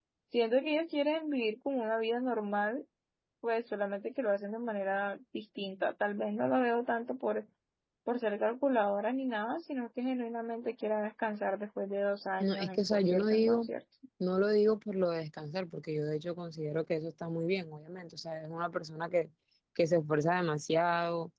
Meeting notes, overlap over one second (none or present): present